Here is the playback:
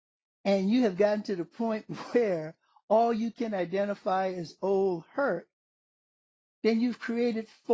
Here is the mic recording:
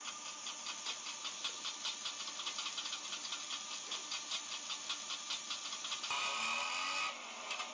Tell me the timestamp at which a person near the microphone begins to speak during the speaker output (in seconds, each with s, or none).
none